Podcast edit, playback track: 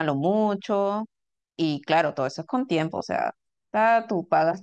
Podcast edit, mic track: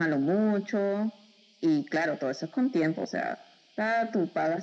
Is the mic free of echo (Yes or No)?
No